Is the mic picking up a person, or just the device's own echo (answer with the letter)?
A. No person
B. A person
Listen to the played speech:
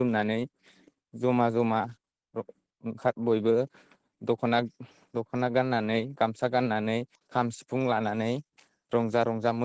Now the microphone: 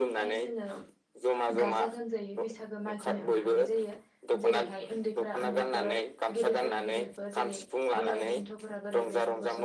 B